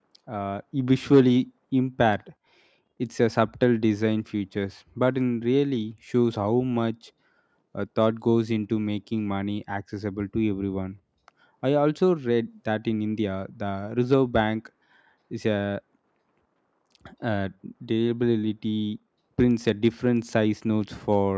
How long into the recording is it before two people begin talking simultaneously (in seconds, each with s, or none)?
none